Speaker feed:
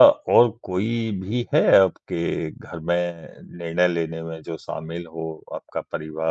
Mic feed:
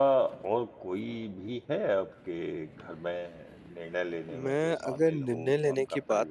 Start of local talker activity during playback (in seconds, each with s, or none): 4.3 s